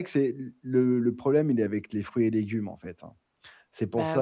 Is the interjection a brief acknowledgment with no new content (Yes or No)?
Yes